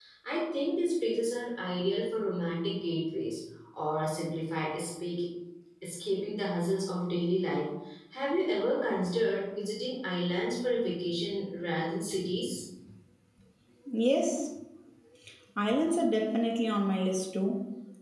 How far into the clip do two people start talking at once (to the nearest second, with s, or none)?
none